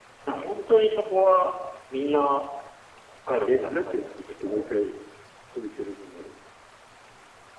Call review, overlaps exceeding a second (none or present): present